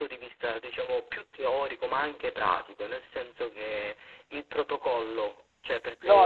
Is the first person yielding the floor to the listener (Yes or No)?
Yes